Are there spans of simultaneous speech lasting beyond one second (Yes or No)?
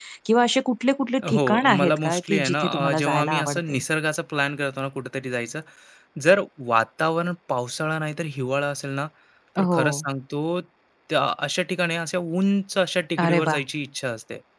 Yes